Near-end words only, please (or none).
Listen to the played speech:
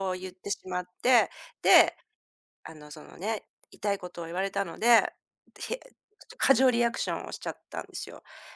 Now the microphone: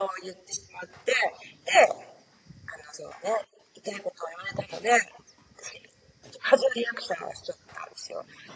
none